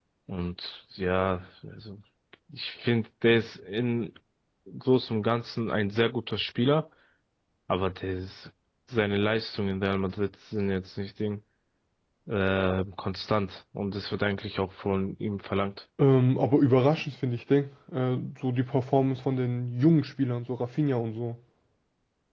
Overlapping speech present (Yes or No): No